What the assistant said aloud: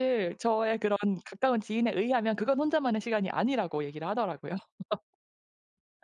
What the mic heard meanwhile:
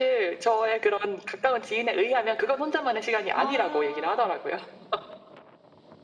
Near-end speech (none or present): present